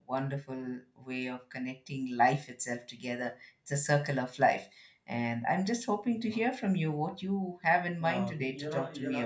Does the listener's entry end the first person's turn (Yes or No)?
Yes